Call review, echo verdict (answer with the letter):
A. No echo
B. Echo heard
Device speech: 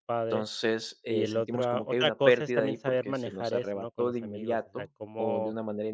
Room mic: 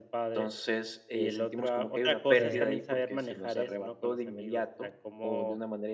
B